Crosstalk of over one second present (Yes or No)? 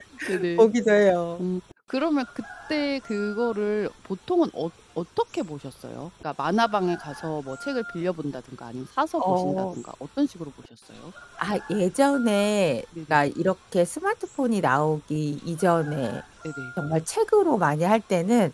No